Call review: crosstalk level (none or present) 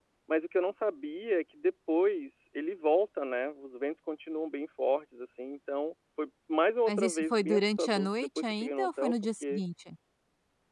present